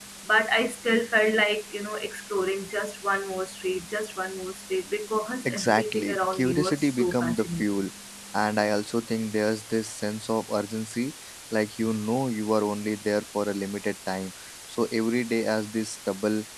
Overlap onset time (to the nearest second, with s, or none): 5 s